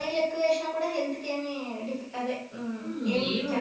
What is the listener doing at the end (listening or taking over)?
taking over